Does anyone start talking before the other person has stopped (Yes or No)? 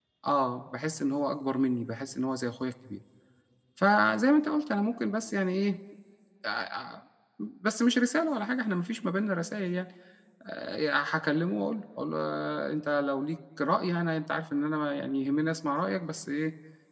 No